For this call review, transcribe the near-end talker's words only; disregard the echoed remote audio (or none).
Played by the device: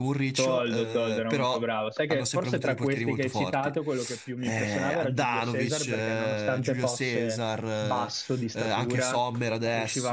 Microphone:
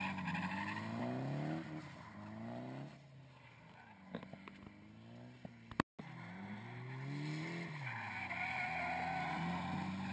none